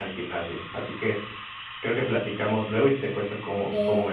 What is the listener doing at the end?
taking over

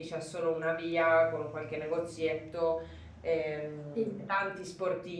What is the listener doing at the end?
listening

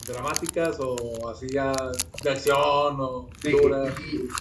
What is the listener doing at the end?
taking over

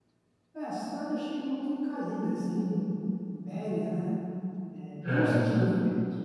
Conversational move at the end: listening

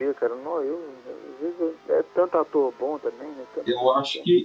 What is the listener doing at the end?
taking over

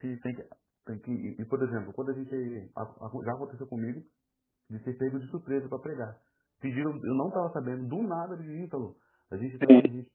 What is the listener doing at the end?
listening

